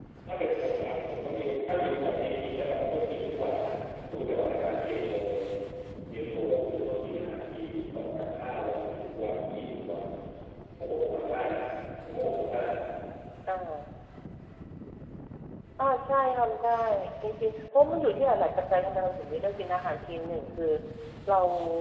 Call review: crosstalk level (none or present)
none